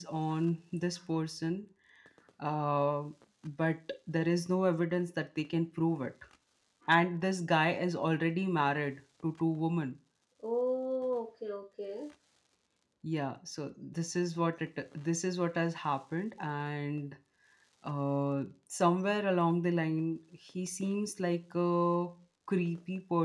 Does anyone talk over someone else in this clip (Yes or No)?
No